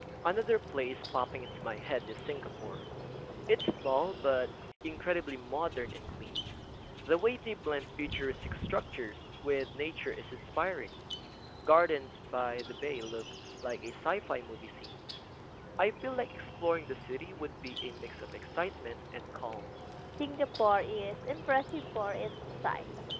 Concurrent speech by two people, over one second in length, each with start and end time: none

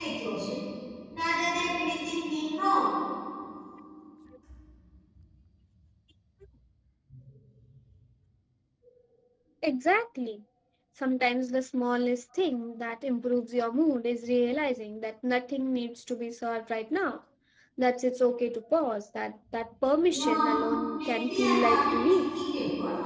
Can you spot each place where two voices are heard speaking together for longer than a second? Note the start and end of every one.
21.1-22.3

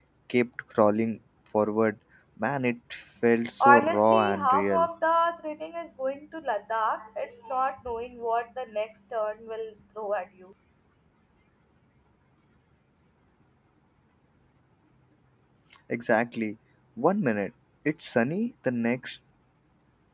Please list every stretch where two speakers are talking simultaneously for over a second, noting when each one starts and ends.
3.6-4.9

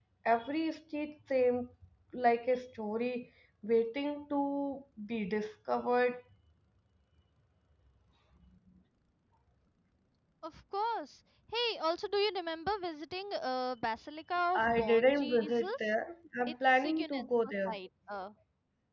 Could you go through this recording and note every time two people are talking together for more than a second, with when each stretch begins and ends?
14.6-15.9, 16.5-17.8

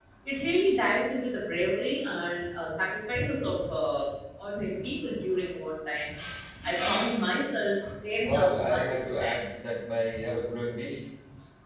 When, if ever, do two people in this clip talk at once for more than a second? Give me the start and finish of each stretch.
8.3-9.6

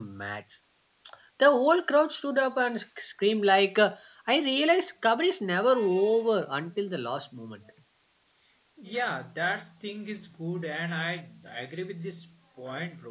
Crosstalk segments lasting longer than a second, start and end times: none

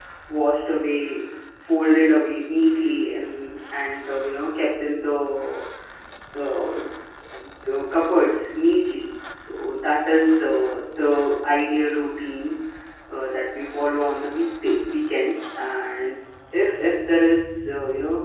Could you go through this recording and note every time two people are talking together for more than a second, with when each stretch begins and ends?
none

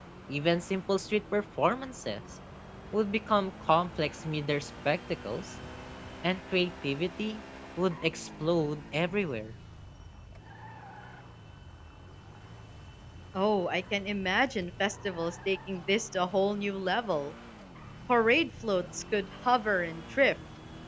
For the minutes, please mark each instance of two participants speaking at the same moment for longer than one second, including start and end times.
none

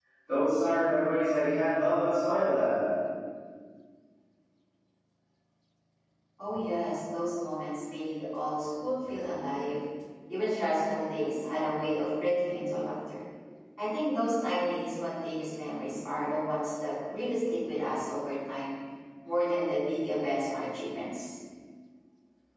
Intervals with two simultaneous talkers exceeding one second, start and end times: none

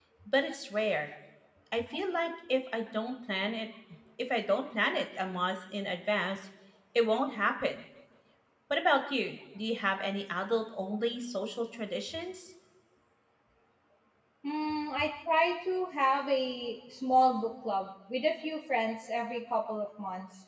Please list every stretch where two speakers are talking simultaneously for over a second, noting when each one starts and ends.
none

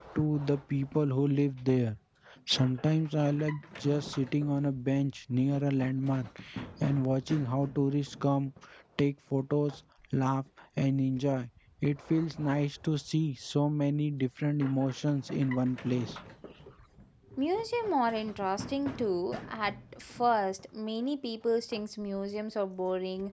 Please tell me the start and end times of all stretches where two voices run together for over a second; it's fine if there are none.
none

